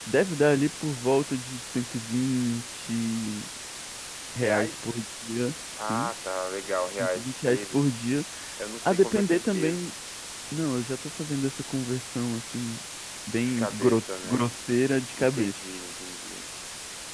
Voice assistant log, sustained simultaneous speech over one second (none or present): present